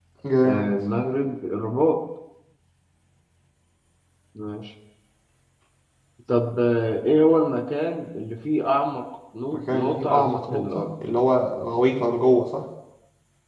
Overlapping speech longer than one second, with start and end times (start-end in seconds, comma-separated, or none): 9.5-10.9